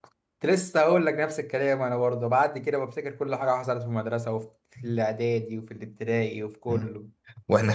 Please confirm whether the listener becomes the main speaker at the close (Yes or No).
Yes